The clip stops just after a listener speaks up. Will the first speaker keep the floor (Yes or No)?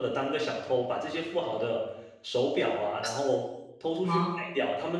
Yes